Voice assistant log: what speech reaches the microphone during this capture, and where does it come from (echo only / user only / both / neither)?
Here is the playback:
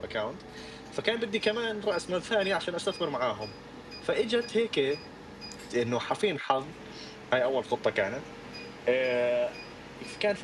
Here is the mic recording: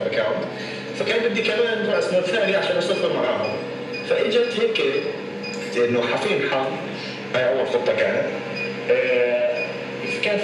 echo only